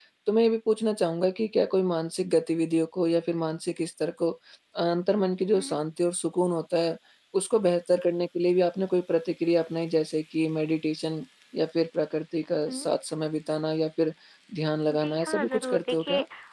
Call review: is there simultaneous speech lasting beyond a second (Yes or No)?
Yes